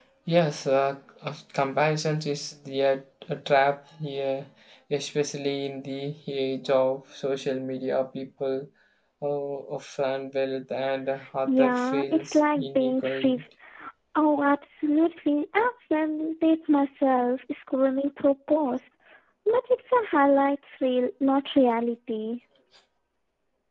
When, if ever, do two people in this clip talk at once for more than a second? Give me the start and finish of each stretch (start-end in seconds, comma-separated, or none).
11.5-13.4